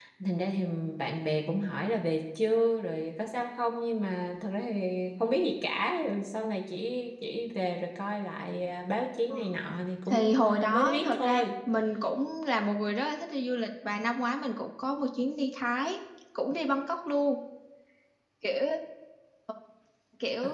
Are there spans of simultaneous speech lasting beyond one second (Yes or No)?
Yes